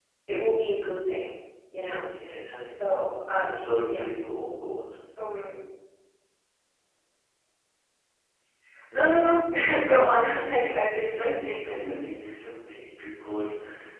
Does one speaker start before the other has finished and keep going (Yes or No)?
Yes